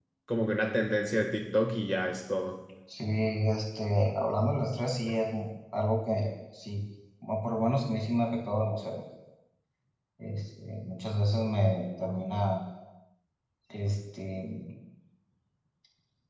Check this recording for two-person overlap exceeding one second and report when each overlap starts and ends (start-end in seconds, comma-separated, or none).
none